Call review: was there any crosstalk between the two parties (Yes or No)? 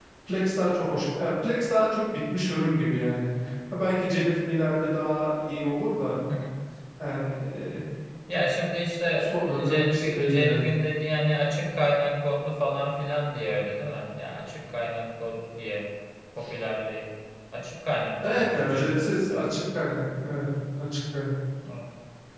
Yes